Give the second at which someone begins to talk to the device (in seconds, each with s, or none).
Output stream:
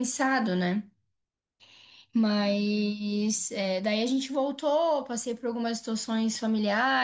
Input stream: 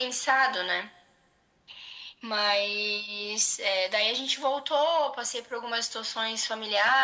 none